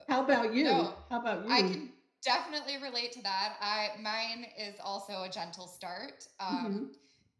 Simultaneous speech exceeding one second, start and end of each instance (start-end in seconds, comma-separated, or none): none